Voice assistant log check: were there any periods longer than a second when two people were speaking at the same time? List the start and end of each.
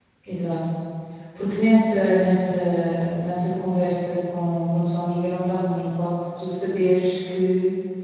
none

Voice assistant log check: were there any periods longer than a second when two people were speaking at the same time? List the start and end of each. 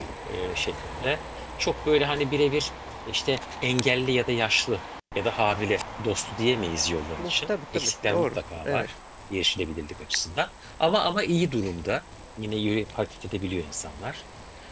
7.2-8.9

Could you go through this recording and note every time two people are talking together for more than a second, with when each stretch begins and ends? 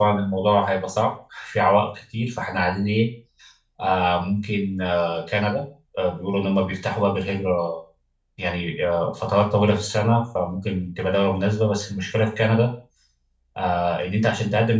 none

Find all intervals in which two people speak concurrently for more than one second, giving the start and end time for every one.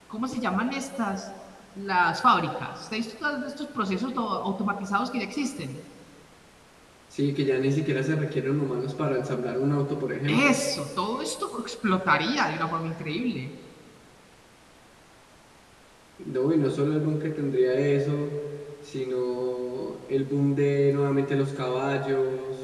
none

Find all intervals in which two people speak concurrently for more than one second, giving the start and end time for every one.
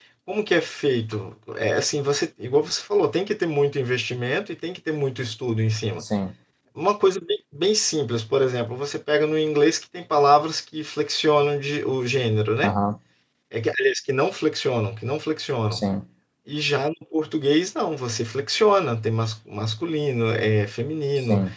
none

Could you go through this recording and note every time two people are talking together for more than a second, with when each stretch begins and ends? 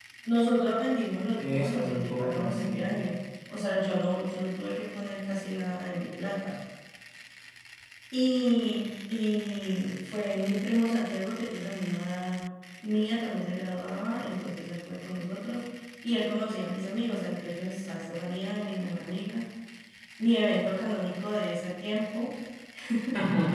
1.4-2.9

